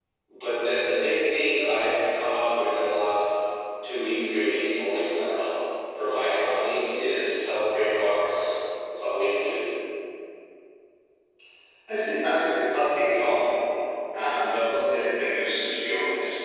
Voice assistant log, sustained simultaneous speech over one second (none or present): none